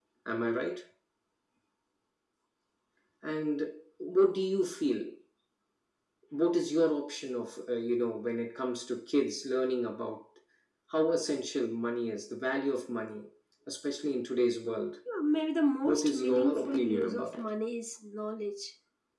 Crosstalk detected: Yes, from 15.8 s

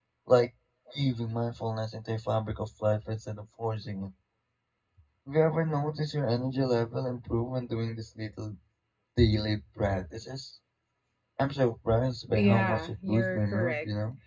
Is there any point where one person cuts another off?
Yes, from 12.4 s

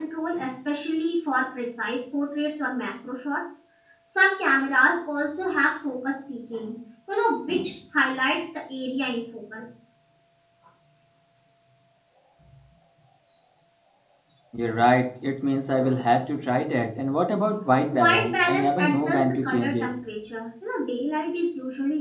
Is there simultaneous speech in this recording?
Yes, from 17.9 s

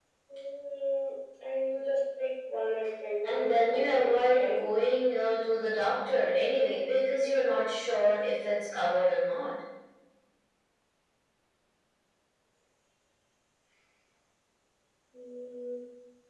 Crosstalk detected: Yes, from 3.2 s

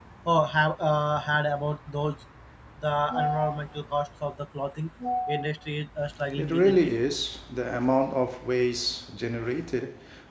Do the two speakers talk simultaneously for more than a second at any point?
No

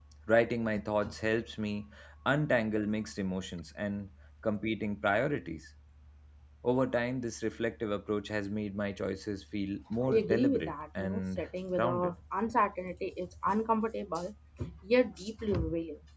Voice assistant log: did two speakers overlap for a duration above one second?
Yes, from 10.0 s

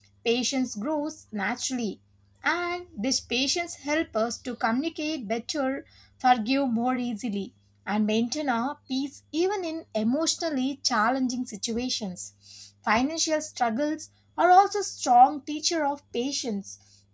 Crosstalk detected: No

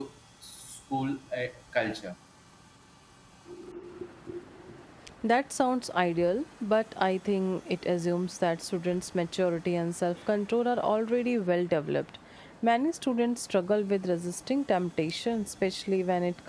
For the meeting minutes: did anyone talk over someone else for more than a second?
No

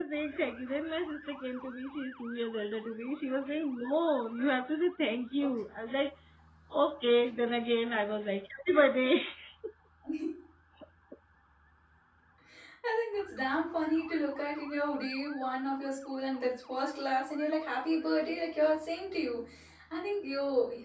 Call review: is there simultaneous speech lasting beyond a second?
No

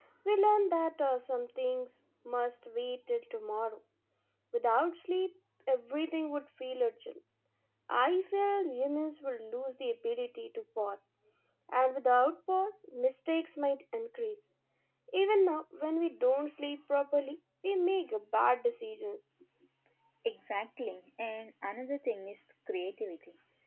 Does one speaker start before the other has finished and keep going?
No

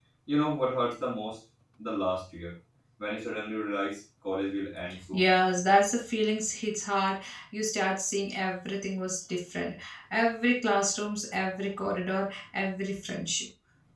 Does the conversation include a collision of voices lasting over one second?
No

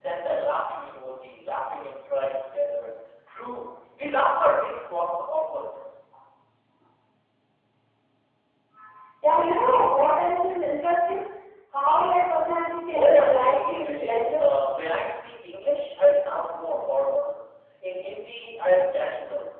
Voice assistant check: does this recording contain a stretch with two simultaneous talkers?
Yes, from 12.9 s

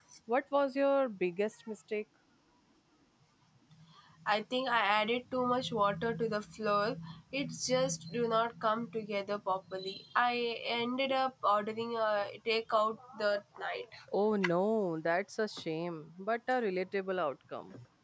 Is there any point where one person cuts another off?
No

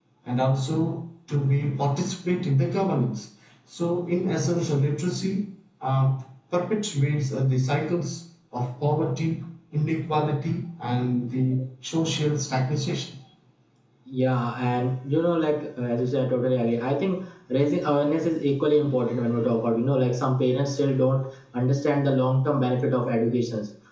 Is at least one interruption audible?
No

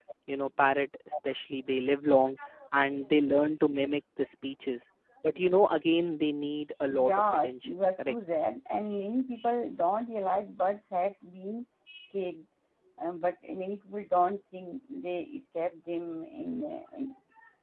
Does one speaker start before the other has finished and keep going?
Yes, from 6.9 s

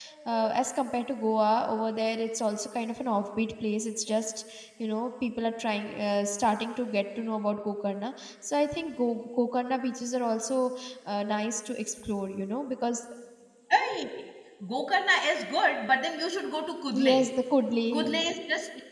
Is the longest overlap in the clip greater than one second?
No

